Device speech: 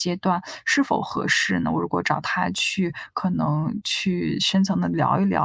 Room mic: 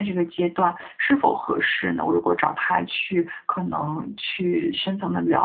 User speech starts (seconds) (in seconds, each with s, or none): none